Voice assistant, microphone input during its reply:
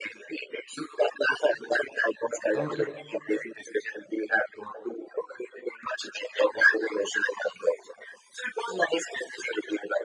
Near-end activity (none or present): present